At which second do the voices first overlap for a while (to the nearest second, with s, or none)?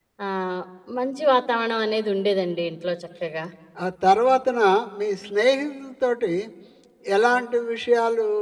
none